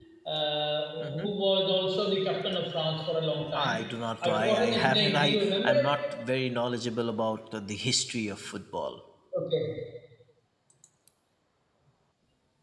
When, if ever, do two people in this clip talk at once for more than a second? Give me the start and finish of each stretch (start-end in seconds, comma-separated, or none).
4.2-5.9